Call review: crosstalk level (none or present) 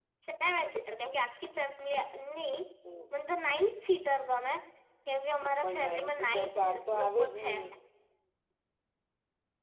present